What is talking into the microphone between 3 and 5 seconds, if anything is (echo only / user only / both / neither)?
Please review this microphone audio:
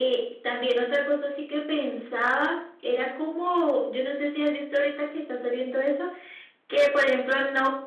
echo only